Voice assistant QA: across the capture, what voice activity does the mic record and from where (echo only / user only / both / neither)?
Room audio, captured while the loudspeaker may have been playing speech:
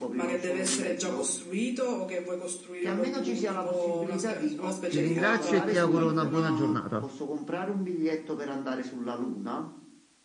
both